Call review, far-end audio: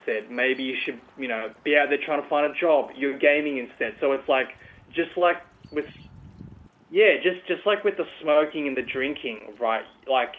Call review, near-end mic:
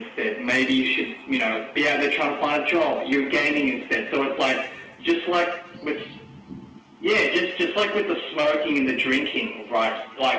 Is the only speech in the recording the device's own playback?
Yes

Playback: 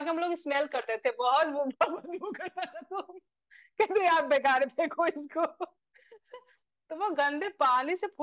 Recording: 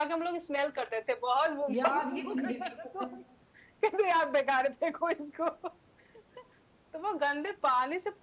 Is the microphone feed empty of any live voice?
No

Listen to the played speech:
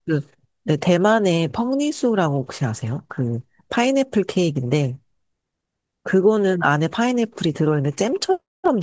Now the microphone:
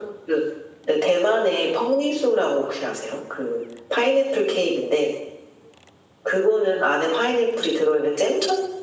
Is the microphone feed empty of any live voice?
Yes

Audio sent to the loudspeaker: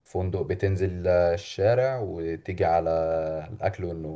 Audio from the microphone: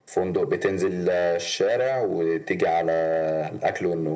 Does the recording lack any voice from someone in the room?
Yes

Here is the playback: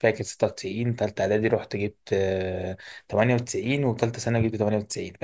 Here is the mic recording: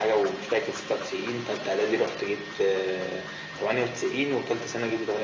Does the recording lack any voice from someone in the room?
Yes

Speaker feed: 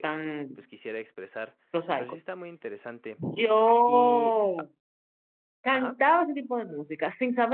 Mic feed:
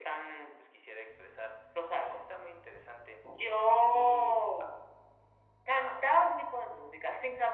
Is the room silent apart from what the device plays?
Yes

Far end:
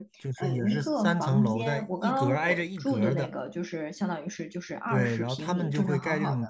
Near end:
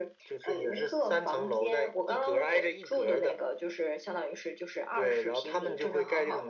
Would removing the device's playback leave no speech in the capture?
Yes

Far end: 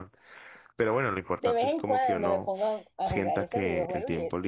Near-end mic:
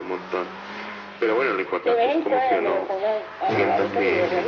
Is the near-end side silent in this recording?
No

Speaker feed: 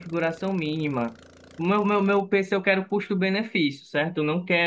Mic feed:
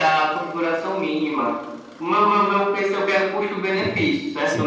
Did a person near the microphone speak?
Yes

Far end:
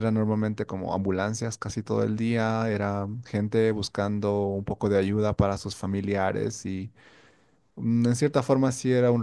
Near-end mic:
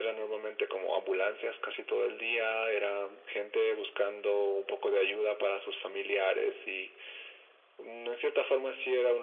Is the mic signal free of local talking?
Yes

